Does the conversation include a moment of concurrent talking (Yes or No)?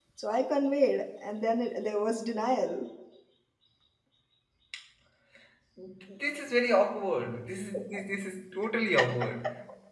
No